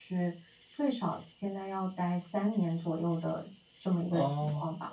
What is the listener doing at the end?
taking over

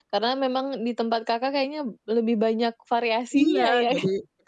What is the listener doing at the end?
taking over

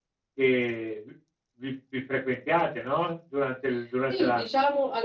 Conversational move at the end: taking over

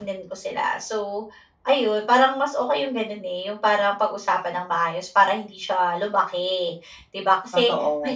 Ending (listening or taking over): listening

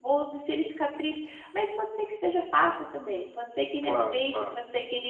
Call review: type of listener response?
listening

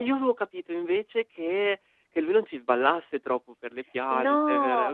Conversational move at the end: taking over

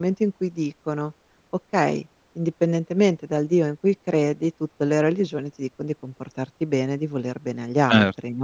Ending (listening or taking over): taking over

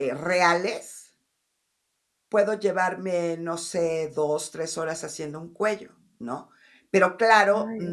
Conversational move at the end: listening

